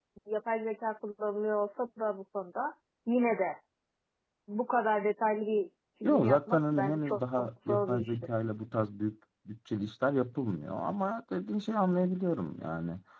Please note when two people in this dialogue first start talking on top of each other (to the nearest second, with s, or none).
6 s